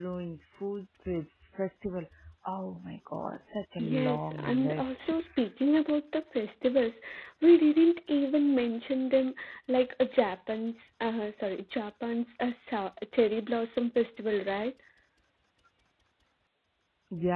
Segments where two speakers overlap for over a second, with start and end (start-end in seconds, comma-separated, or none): 3.8-5.1